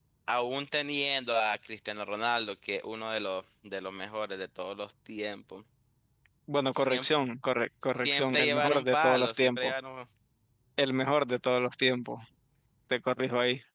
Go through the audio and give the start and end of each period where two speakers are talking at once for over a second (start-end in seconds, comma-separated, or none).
7.9-9.7